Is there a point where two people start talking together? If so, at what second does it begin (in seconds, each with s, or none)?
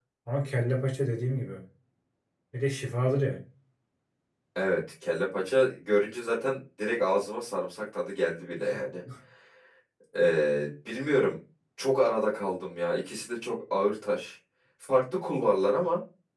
none